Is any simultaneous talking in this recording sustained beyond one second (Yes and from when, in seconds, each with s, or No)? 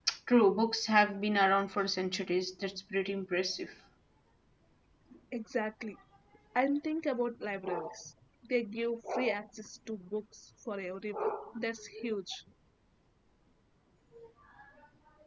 No